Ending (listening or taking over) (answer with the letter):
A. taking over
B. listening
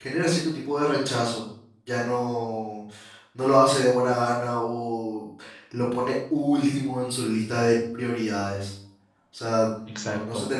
B